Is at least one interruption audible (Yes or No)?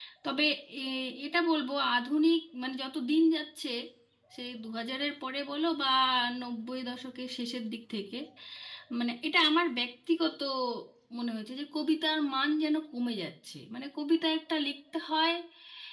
No